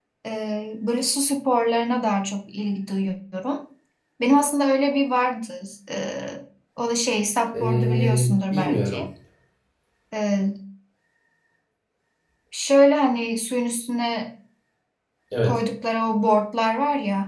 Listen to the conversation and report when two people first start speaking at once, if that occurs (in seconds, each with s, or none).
7.5 s